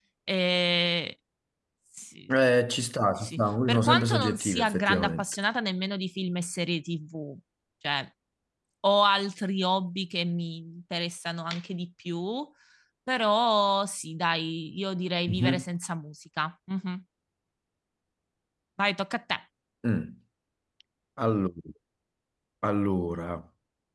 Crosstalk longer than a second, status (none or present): present